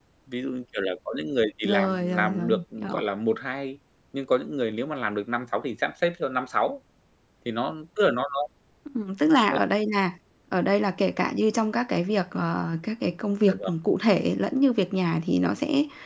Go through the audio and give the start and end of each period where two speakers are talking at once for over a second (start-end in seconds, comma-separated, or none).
1.6-3.0